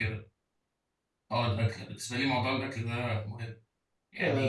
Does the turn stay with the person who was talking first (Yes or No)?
No